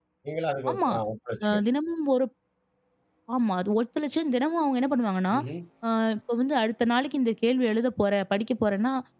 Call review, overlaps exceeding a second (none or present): none